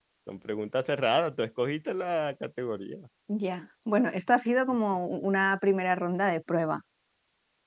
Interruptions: none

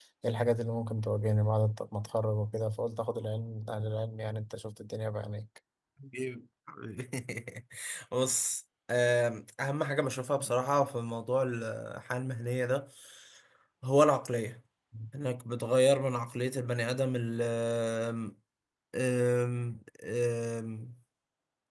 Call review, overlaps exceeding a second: none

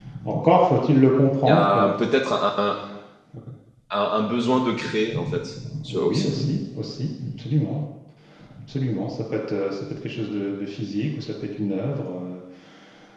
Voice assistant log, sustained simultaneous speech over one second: none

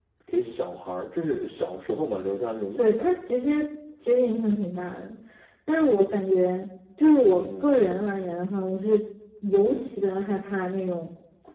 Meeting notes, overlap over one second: none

